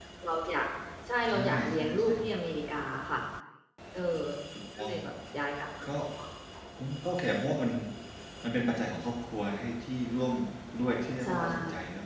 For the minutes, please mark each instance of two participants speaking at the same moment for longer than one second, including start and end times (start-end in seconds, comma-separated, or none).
1.3-2.5